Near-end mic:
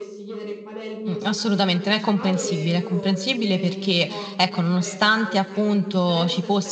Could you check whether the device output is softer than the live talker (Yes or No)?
Yes